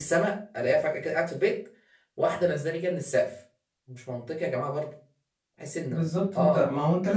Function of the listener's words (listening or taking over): taking over